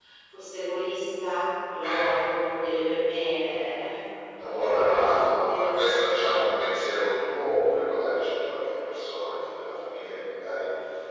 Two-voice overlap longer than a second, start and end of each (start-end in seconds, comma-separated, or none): 4.5-6.1